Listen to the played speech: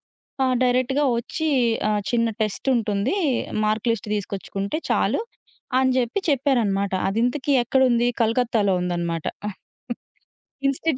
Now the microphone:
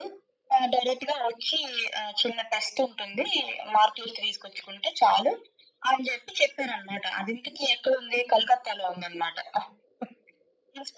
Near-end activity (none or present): none